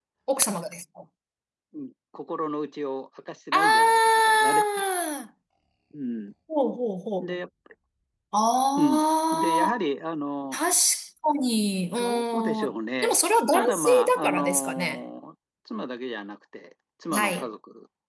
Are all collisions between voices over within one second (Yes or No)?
No